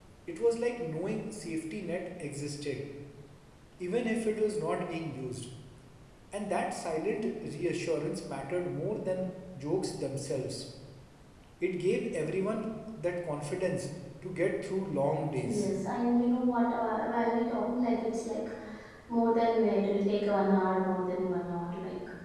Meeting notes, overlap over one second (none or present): none